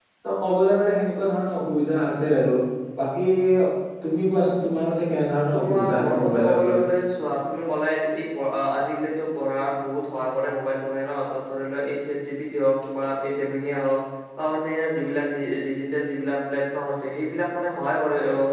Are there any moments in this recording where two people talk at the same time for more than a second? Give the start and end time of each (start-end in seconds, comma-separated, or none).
5.5-6.8